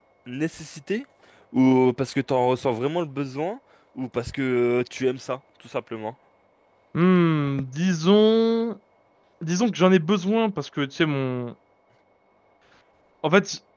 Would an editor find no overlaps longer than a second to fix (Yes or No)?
Yes